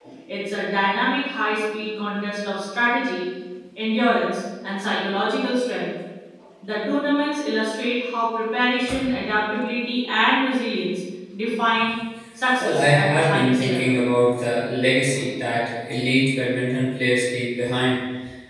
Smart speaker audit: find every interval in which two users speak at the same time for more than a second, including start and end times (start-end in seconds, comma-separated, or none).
12.6-13.9